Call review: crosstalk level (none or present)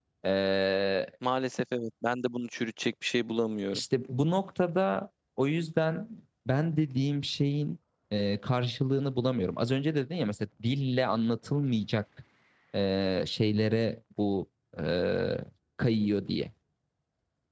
none